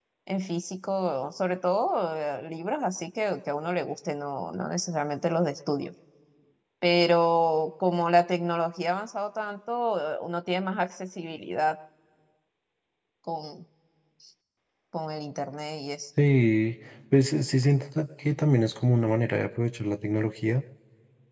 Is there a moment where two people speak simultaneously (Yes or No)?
No